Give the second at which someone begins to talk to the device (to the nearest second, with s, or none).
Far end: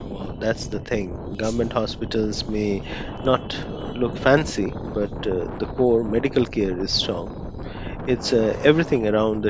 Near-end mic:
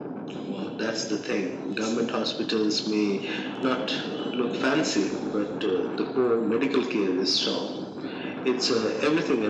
none